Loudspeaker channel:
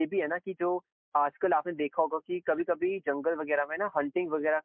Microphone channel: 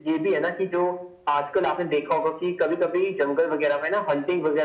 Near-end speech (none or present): none